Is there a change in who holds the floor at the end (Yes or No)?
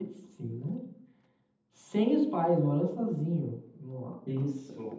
No